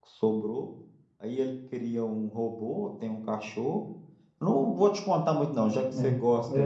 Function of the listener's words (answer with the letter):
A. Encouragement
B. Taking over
A